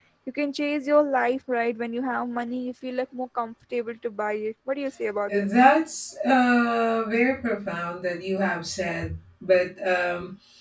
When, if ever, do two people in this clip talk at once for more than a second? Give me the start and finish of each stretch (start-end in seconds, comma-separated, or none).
none